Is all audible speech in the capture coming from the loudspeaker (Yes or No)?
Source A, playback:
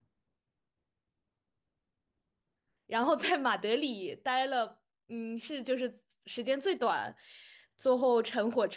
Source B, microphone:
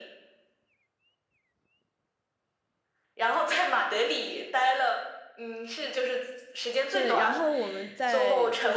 No